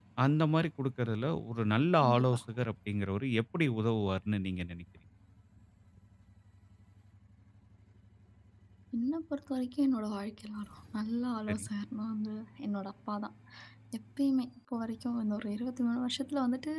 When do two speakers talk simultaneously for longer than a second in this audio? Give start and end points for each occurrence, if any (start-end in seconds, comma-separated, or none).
none